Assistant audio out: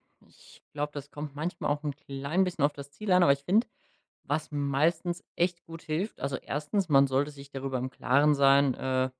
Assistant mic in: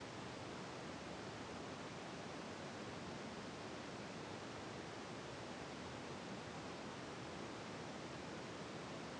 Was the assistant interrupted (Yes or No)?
No